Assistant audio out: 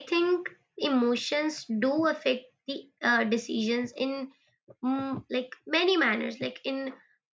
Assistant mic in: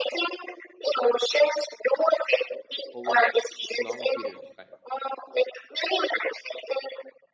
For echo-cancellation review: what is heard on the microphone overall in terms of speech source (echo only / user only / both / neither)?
both